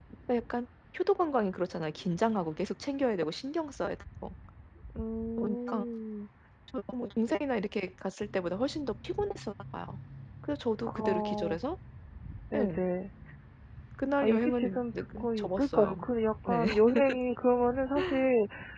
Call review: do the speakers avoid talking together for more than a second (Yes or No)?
No